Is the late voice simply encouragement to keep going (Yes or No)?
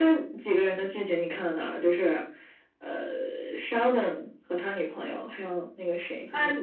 No